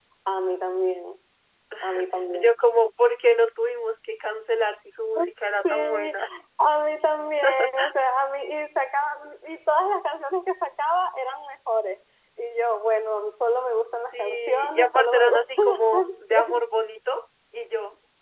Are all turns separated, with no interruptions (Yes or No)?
No